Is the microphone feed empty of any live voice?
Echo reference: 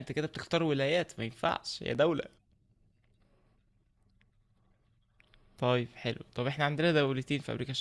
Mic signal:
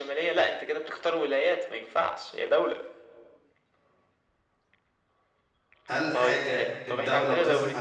No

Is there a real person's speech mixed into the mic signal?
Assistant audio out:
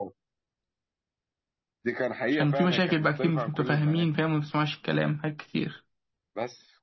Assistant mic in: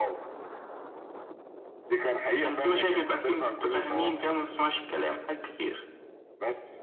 Yes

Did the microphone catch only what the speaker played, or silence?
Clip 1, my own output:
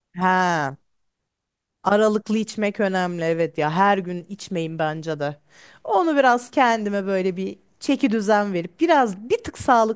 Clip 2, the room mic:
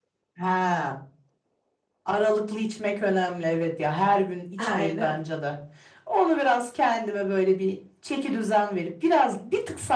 No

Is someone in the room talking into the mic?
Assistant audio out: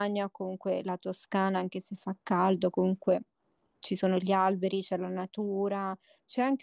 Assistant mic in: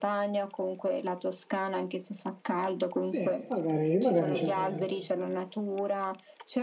Yes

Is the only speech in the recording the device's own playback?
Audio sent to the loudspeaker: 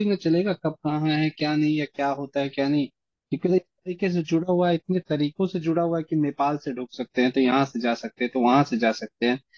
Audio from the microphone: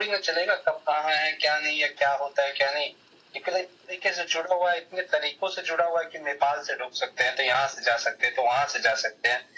Yes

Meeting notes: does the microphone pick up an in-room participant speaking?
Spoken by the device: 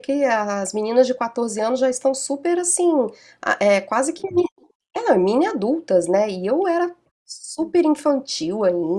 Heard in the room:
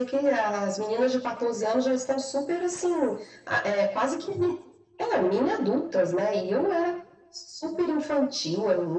No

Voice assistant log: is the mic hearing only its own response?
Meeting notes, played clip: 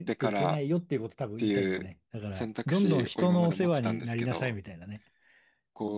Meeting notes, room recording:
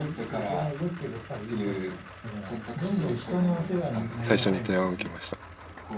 No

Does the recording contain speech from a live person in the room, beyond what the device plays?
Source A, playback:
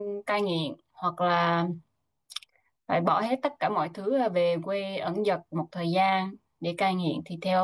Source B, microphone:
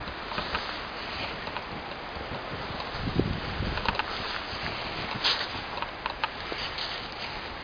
No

